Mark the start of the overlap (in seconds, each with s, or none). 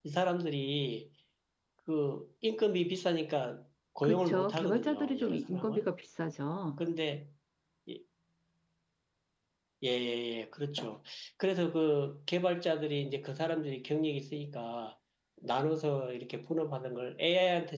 4.0 s